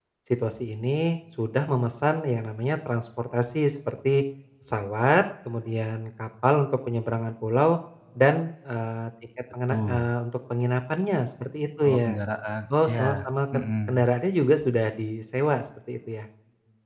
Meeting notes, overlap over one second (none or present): none